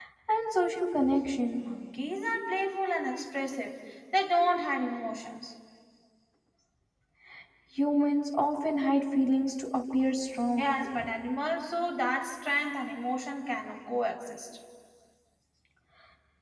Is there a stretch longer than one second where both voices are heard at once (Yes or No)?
No